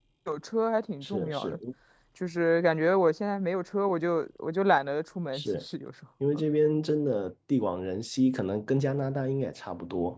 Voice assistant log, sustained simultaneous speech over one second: none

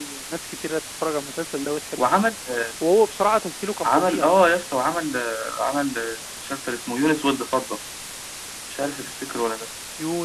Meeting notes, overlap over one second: none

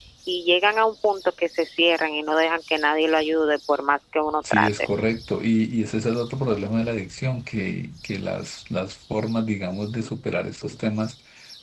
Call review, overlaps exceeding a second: none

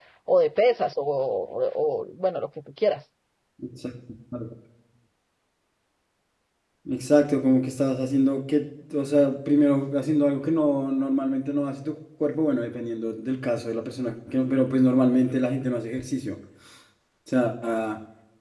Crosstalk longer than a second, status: none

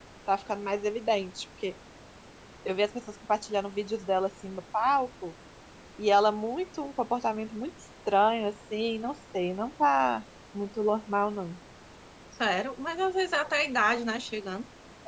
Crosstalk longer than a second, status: none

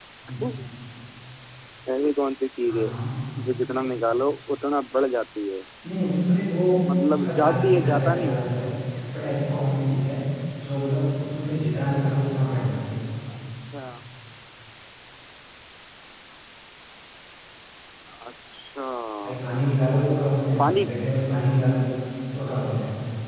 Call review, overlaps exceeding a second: present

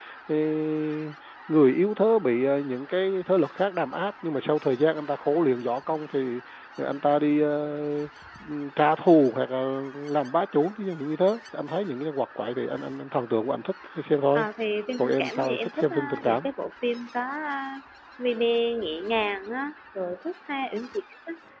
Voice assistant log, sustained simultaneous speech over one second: present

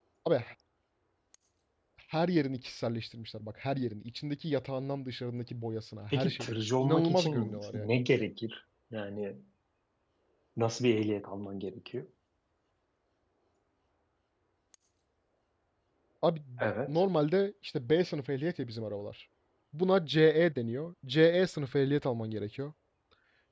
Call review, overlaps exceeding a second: present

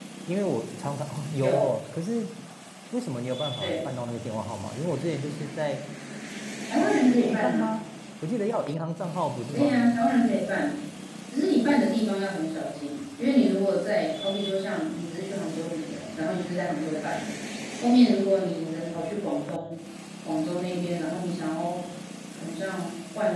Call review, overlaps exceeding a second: none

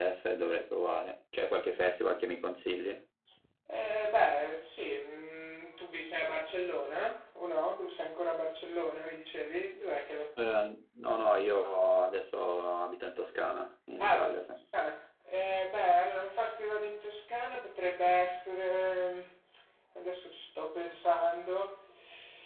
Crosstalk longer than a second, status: none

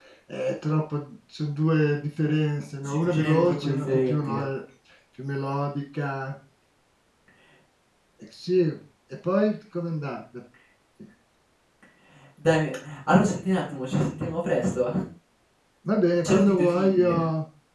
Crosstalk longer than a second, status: present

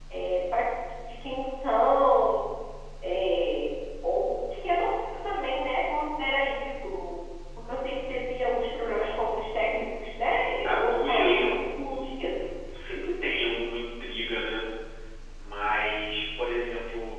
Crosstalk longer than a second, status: present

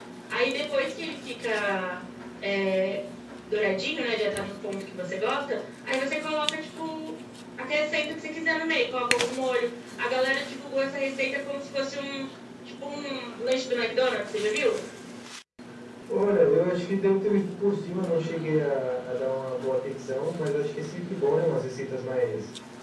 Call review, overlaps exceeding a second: none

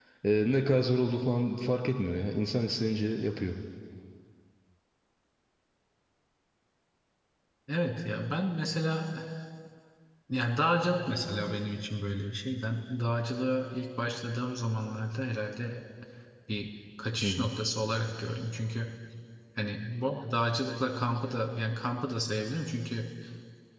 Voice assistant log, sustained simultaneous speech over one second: none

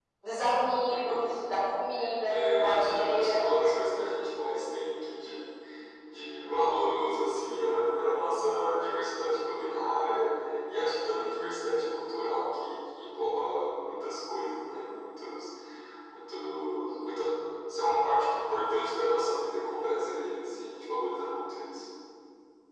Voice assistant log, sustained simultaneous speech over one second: present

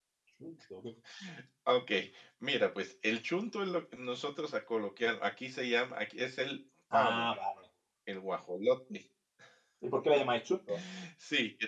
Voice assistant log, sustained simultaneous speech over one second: none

